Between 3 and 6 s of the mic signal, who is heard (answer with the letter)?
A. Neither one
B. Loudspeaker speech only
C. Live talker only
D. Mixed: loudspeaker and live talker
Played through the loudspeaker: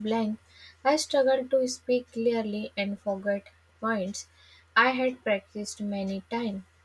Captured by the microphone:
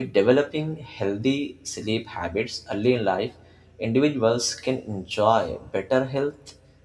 C